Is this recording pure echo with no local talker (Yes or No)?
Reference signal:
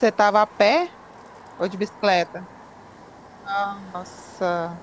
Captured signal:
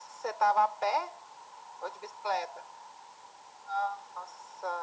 Yes